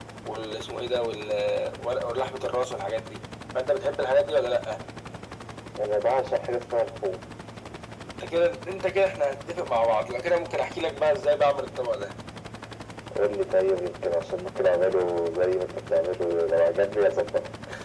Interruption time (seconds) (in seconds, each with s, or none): none